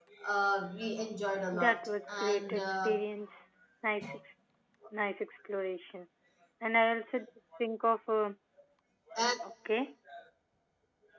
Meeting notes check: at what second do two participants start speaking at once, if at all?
1.5 s

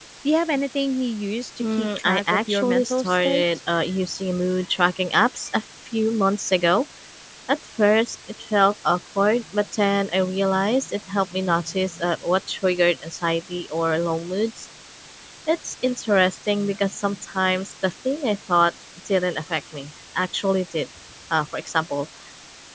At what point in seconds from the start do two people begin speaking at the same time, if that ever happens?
1.6 s

